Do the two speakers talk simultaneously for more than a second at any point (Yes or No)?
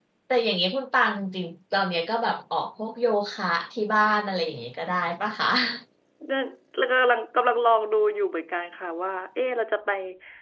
No